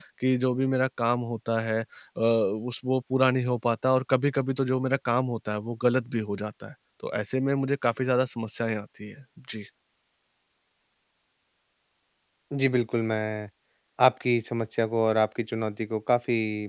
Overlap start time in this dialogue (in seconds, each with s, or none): none